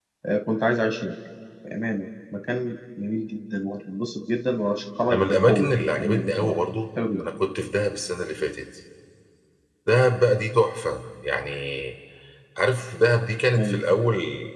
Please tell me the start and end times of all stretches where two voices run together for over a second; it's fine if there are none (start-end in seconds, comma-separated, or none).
5.1-6.5